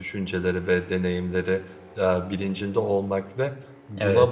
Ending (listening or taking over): listening